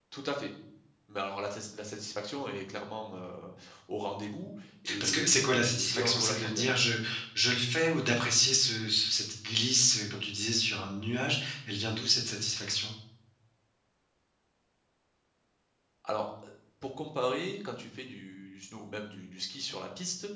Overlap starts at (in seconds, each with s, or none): 4.8 s